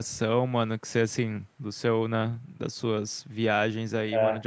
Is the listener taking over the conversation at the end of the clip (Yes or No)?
No